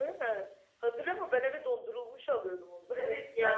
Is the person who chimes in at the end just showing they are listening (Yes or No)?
No